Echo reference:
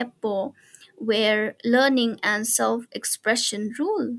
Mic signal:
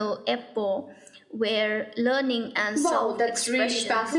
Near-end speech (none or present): present